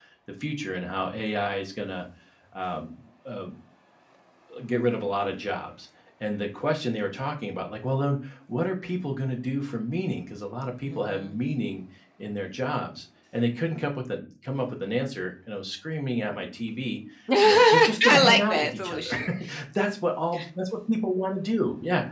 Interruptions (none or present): present